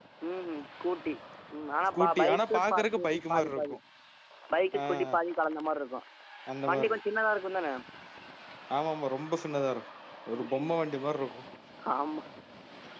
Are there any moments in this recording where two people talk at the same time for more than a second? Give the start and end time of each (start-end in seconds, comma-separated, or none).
1.9-3.8